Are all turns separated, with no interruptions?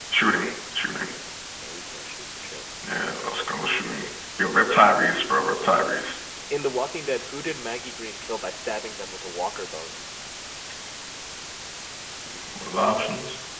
Yes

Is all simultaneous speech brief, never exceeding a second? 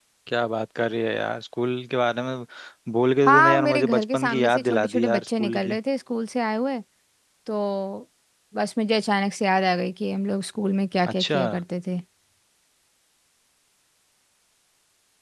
No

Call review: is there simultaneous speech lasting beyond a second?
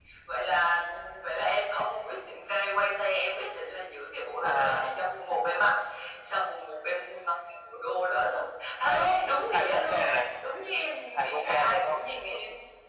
Yes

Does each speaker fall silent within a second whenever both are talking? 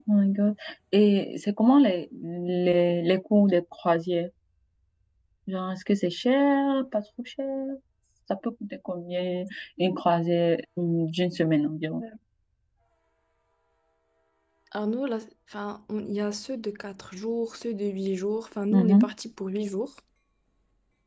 Yes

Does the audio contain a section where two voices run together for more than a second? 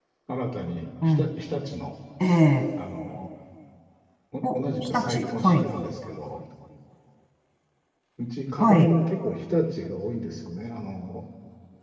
Yes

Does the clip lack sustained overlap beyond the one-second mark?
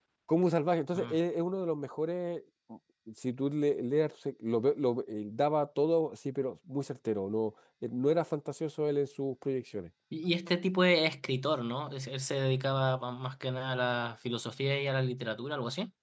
Yes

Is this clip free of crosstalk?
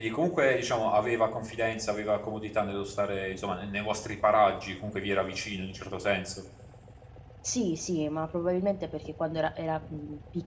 Yes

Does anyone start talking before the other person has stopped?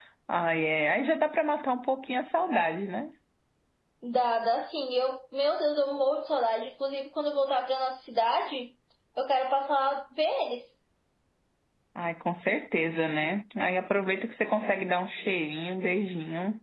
No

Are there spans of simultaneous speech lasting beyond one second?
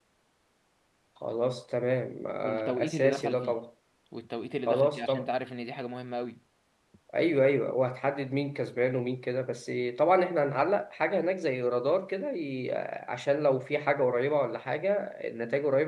Yes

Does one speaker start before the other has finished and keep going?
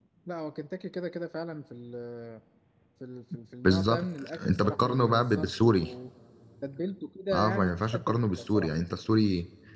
Yes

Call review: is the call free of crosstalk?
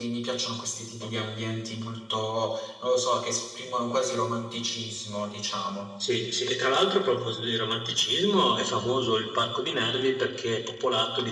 Yes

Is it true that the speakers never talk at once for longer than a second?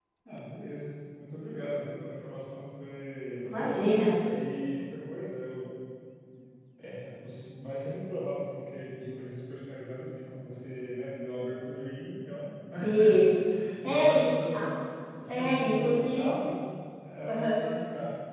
No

